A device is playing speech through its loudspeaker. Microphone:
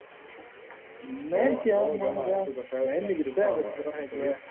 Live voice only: none

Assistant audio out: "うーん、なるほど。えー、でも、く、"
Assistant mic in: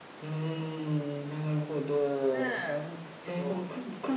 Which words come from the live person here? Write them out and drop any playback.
ねえ、ほんと。

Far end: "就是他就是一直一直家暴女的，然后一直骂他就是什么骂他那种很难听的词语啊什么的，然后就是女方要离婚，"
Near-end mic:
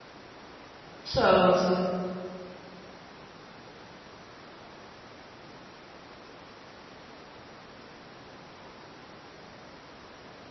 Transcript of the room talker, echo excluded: 是俄罗斯，

